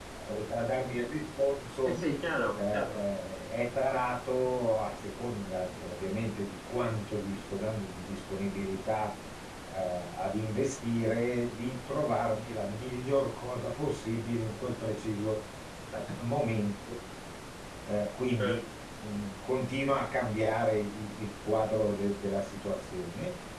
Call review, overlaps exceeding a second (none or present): none